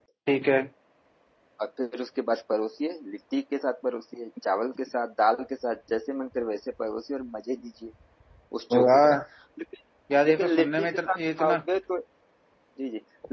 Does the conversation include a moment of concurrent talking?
Yes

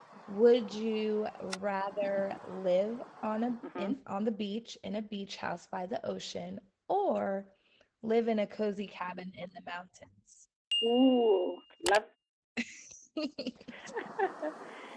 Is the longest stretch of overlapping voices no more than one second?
Yes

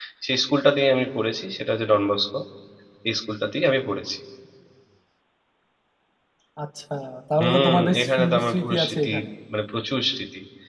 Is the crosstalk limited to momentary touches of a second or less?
No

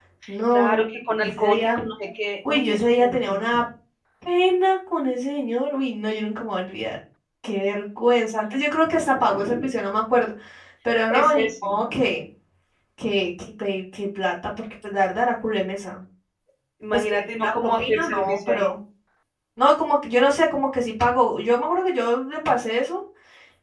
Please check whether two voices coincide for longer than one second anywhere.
Yes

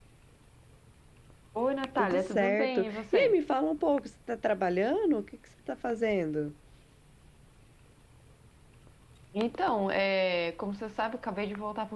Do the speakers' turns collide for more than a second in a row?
Yes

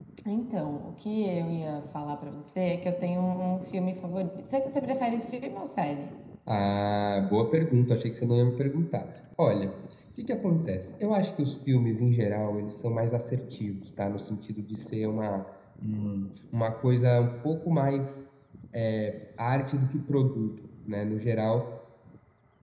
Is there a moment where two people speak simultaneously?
No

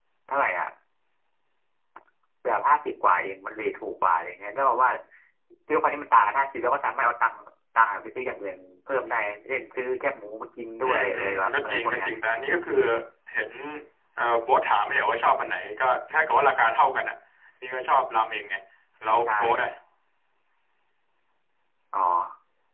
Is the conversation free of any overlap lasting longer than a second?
No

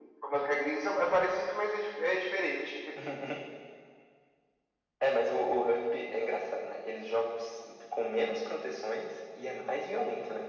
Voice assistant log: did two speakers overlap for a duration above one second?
No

